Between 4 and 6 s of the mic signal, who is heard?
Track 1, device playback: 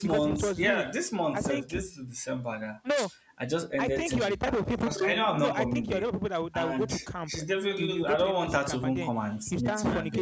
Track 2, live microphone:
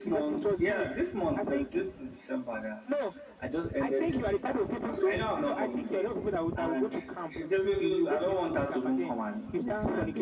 echo only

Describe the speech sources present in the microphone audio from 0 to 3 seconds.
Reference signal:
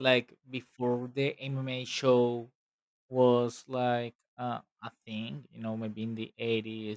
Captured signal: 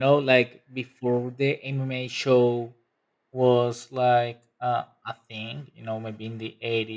echo only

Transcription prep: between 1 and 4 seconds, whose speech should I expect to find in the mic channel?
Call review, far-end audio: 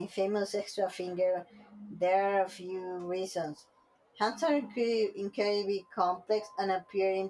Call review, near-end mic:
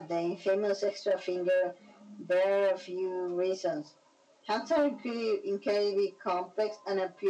echo only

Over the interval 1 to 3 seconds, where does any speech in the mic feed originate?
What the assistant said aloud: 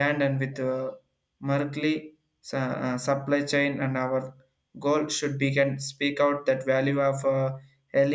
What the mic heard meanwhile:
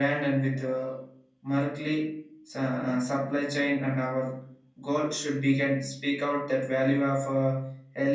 echo only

